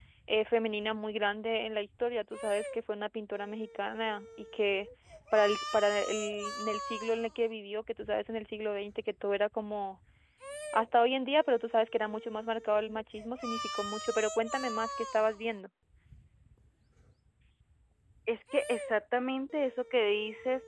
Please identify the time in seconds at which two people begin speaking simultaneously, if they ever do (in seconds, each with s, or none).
none